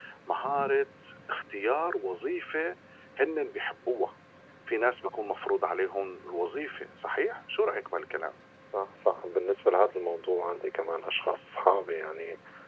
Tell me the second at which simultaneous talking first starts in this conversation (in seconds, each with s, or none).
none